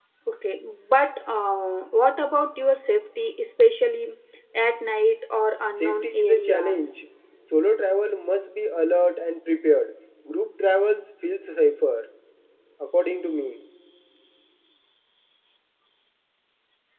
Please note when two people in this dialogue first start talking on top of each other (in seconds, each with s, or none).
5.8 s